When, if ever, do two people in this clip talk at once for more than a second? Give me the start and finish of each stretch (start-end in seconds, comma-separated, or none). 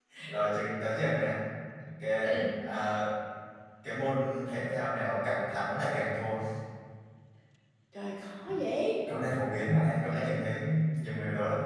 none